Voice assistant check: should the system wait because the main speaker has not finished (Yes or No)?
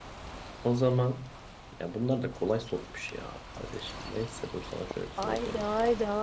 No